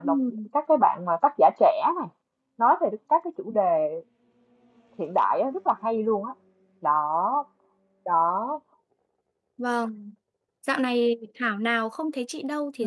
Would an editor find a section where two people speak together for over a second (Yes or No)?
No